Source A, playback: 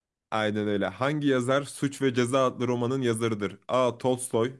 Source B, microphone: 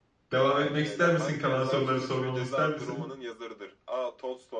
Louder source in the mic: user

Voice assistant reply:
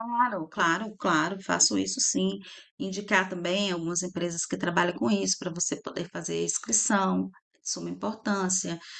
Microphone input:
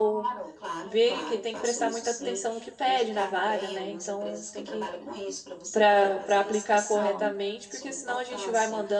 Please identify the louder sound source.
user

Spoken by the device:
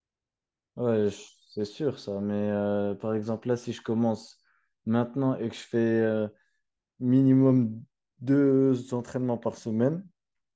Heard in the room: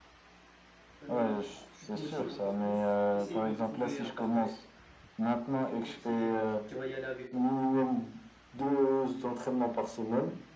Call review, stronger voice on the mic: echo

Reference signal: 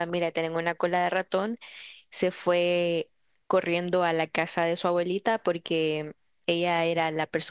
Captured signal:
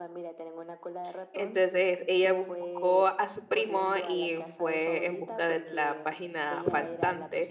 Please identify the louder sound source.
user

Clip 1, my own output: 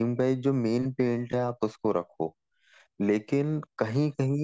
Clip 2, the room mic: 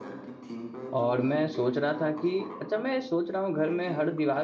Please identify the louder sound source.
user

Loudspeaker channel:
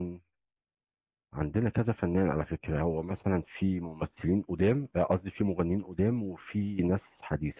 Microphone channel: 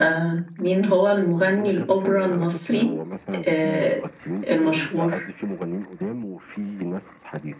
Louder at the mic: user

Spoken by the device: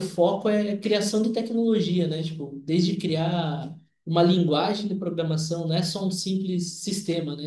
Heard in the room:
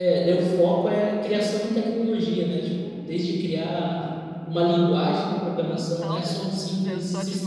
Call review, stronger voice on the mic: echo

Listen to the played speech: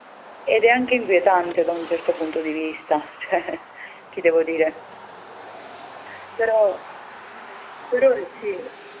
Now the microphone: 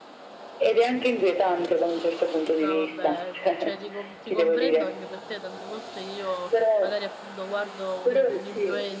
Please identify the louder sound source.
echo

